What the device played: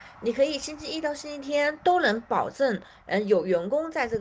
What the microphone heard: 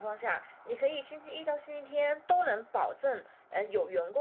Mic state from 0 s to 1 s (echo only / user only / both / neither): echo only